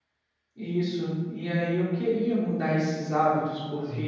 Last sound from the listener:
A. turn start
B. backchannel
B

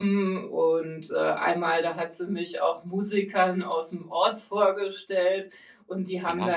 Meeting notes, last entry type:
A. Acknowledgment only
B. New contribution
A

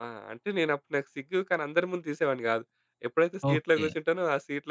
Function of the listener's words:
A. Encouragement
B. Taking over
A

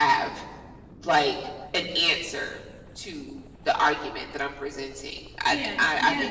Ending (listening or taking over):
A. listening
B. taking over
B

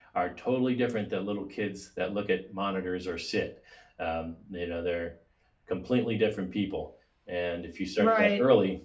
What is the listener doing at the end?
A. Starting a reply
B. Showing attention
B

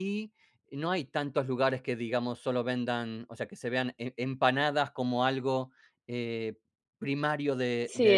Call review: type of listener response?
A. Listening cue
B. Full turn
B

